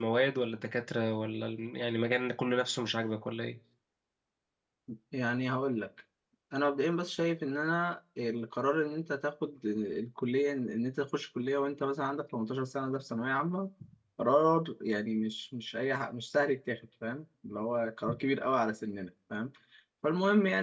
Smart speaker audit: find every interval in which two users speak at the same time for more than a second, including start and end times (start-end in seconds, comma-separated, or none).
none